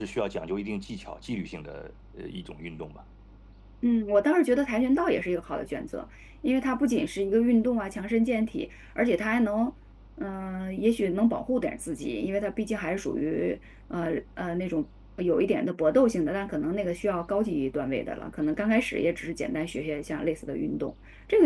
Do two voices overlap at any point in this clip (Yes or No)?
No